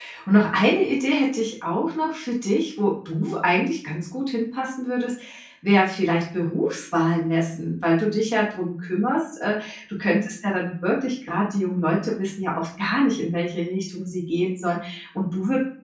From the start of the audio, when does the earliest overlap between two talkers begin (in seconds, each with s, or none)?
none